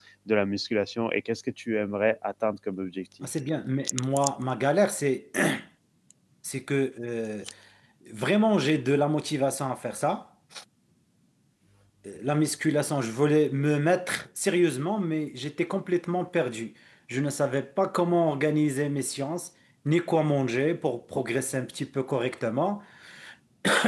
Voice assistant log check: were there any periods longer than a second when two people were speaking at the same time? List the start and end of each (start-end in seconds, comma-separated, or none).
none